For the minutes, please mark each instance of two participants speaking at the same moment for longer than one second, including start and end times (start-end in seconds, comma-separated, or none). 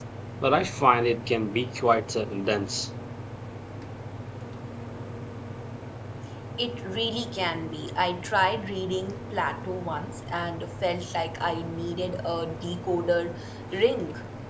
none